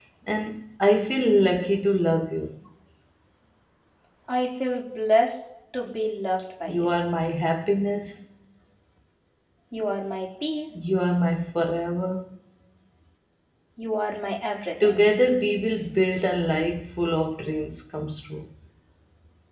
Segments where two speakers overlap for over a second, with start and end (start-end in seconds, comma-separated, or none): none